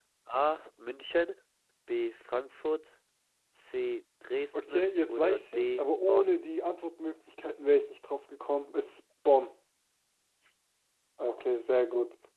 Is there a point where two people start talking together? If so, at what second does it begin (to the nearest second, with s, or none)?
5 s